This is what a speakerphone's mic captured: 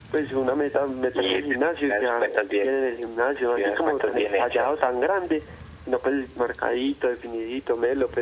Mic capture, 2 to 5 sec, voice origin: echo only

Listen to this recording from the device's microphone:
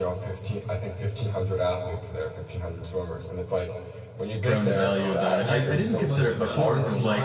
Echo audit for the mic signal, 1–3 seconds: echo only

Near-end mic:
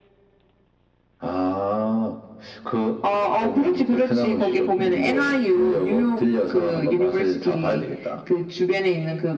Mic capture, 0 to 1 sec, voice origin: neither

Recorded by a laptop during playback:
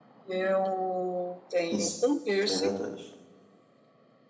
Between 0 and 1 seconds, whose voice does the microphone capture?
echo only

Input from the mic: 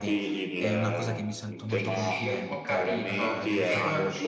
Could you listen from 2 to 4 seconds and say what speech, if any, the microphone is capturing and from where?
both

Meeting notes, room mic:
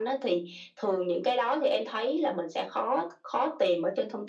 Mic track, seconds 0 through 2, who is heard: echo only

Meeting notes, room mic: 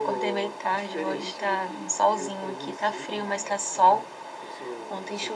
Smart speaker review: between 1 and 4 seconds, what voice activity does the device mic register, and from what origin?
echo only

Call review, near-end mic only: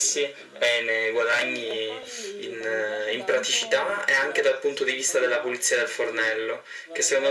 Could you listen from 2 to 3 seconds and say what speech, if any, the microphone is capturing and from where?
both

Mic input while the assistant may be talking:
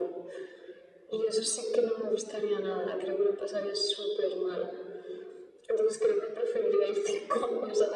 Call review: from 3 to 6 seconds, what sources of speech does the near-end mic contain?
echo only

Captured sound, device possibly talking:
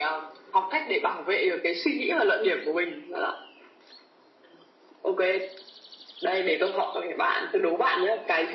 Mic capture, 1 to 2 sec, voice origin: echo only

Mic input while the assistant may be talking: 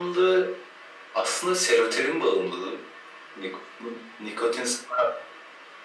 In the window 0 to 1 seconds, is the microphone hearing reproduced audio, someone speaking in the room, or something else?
echo only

